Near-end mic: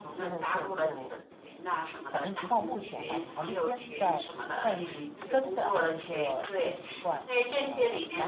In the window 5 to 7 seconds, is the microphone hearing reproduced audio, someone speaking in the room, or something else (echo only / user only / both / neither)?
both